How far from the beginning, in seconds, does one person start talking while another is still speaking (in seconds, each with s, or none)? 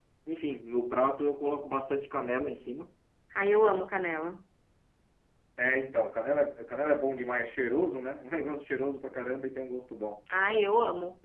none